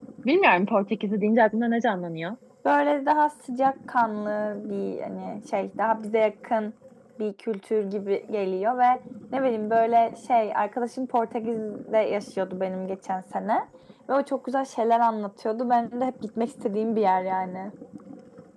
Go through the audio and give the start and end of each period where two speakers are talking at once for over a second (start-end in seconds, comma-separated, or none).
none